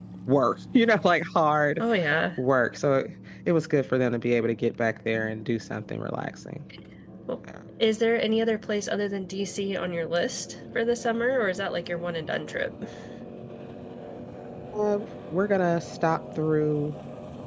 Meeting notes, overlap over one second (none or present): none